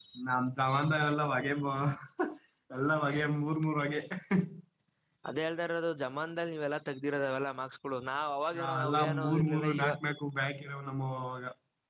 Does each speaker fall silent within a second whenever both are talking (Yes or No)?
No